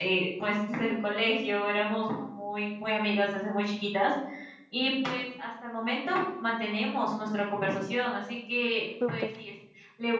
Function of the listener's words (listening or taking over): listening